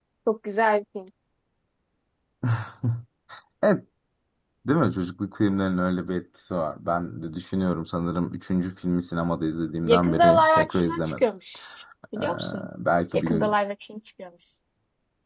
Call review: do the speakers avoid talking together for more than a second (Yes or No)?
No